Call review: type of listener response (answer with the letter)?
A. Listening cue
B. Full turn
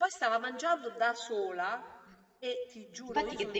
B